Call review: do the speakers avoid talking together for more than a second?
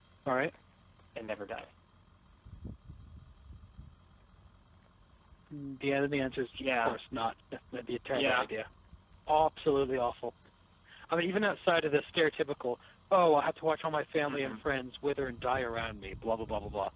Yes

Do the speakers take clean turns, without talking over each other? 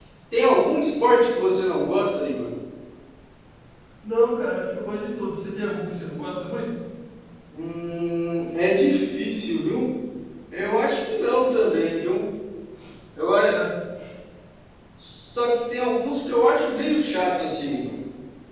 Yes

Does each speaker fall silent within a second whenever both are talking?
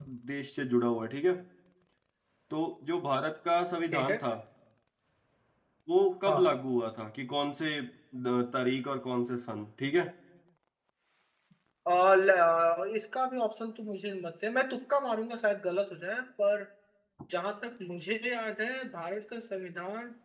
Yes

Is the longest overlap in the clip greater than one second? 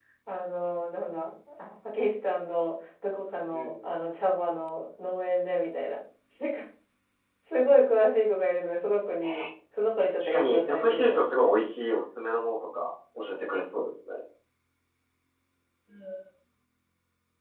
Yes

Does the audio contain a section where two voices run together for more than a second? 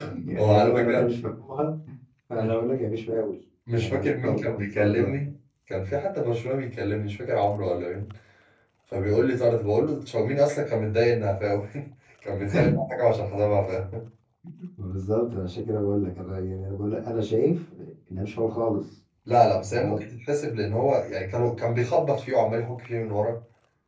Yes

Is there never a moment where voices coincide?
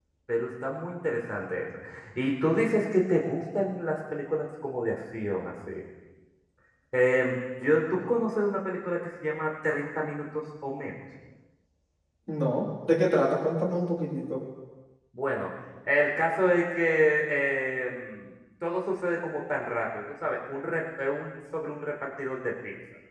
Yes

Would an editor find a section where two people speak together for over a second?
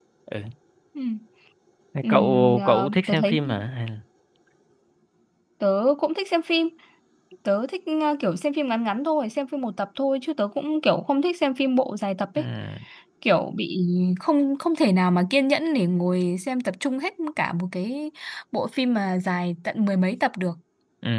Yes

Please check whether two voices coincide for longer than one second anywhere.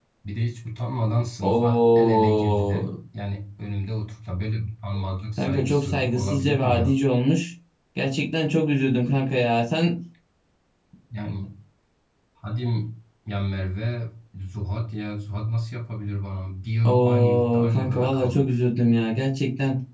Yes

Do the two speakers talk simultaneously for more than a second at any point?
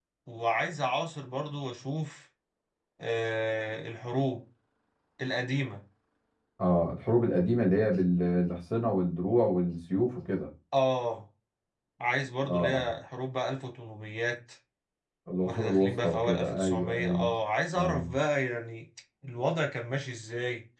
Yes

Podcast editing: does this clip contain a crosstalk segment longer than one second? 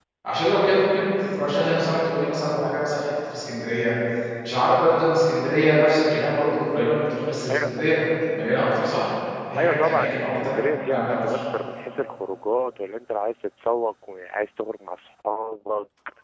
Yes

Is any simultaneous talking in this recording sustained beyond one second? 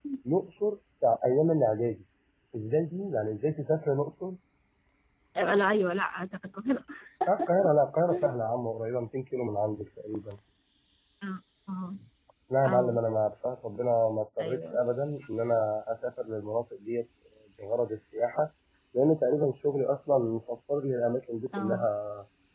No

